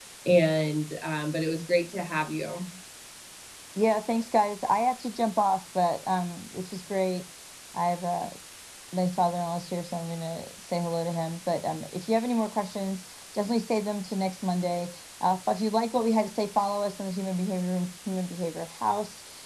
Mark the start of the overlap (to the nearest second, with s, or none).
none